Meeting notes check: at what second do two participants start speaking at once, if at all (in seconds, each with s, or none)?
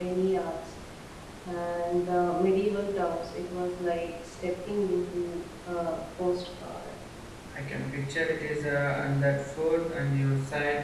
none